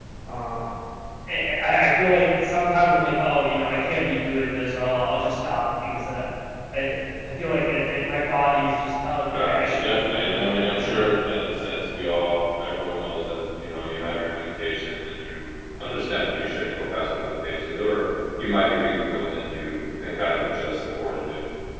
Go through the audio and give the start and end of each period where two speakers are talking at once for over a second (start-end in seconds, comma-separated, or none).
9.3-11.1